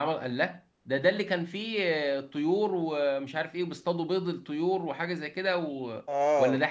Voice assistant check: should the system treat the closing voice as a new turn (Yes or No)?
Yes